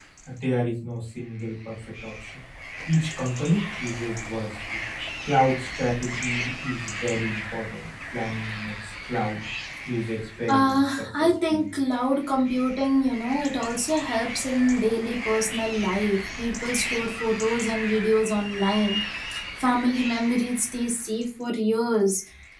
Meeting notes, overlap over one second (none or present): present